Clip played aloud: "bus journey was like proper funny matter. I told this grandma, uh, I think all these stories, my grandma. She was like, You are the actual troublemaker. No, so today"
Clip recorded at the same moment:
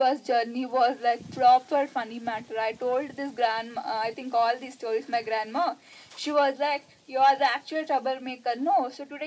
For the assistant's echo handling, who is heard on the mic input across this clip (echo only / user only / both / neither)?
echo only